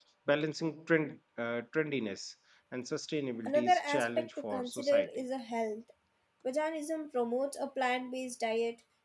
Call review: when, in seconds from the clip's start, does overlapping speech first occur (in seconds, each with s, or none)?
3.5 s